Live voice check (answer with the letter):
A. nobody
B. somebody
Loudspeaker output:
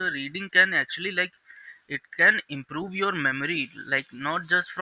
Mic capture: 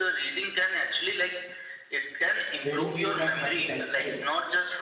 B